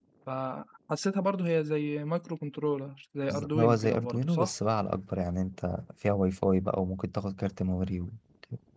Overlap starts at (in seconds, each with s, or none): 3.3 s